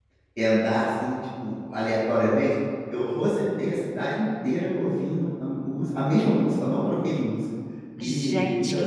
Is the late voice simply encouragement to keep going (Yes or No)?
No